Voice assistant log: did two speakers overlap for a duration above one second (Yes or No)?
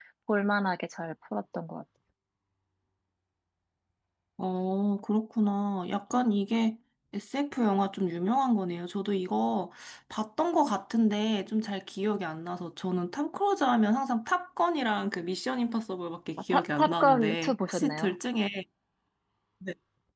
Yes